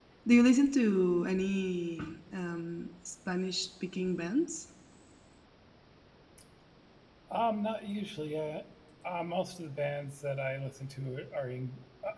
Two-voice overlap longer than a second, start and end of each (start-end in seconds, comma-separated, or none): none